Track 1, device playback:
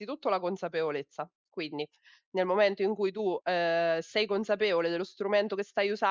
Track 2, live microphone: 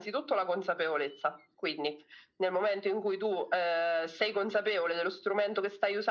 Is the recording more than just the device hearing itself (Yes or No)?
No